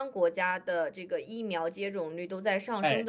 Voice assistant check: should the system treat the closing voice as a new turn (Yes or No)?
No